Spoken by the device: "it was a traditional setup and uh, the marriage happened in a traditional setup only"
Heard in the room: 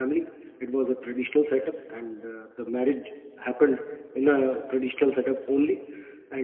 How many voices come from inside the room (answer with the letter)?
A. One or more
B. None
B